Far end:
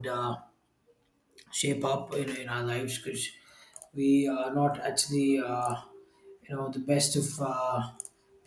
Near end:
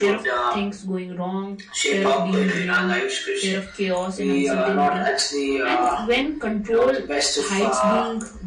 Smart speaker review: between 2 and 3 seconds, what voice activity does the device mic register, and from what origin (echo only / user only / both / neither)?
both